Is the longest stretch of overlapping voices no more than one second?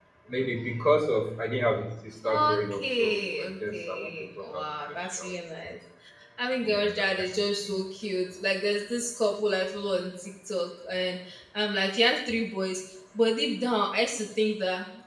No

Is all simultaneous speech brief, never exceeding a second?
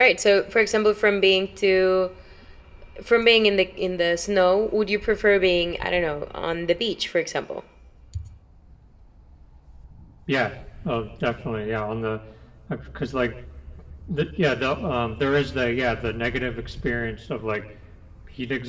Yes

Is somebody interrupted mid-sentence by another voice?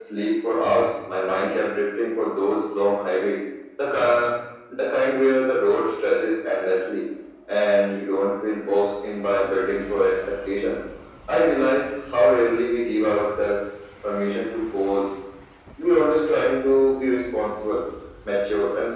No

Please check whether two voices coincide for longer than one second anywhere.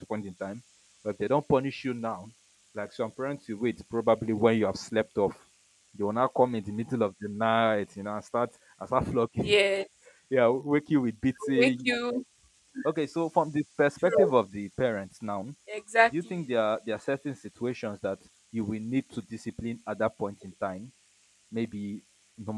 No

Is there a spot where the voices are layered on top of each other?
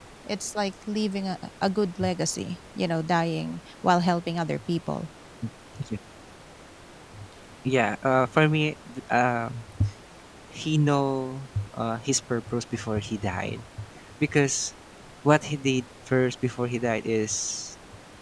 No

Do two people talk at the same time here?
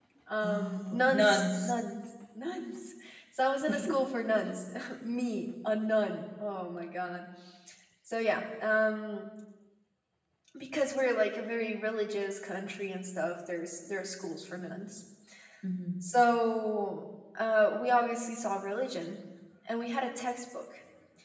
Yes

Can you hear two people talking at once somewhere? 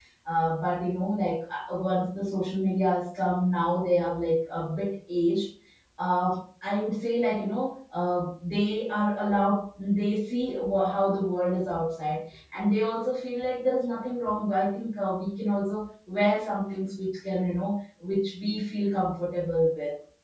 No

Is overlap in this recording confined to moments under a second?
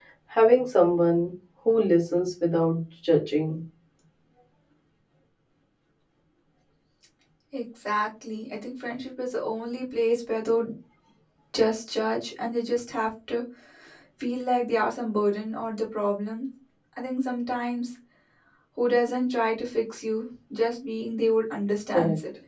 Yes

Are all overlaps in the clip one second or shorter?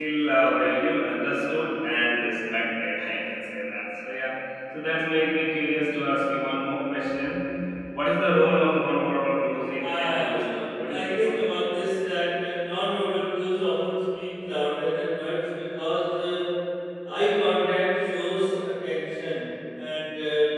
No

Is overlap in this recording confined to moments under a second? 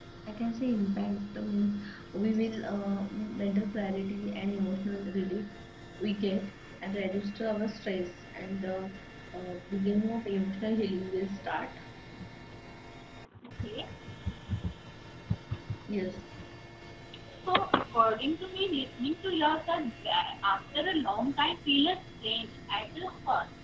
Yes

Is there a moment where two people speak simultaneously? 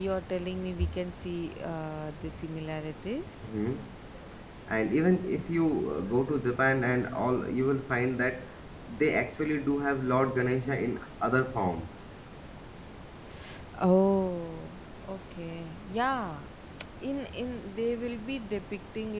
No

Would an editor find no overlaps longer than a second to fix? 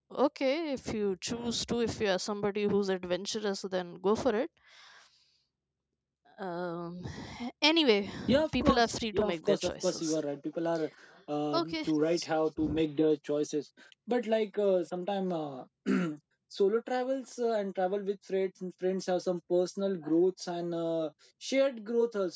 No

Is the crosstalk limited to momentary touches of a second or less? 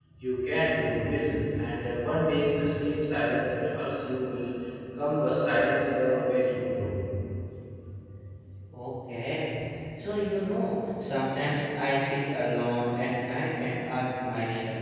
Yes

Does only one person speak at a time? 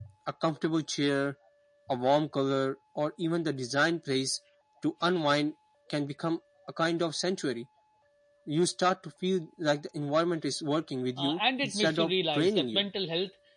No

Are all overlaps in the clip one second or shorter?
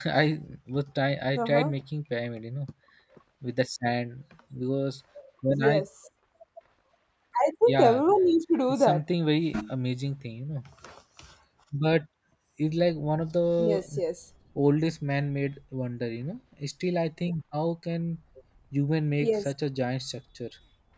Yes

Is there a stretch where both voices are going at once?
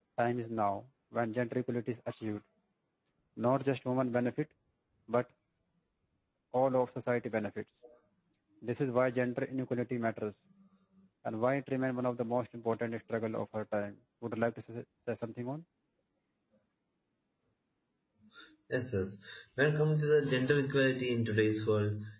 No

